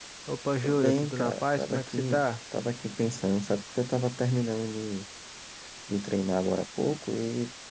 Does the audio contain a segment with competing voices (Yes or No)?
Yes